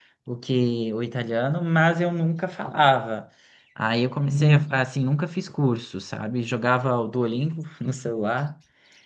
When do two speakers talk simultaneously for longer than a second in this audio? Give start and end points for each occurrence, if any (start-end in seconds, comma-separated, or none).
none